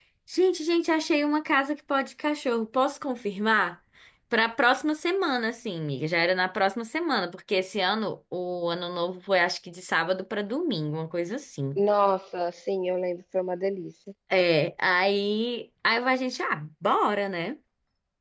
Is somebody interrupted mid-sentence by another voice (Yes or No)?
No